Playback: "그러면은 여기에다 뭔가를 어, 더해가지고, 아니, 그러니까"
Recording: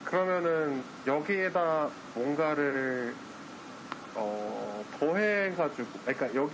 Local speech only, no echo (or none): none